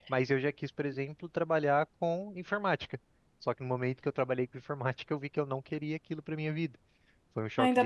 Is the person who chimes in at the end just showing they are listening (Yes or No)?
No